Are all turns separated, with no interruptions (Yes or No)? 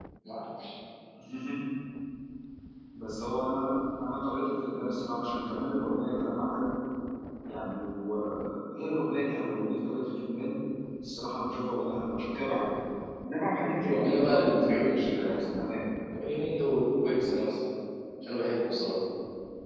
No